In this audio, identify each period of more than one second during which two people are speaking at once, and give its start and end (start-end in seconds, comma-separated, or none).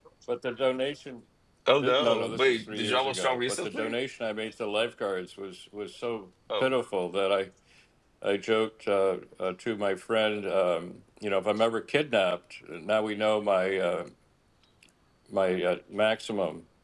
1.8-3.9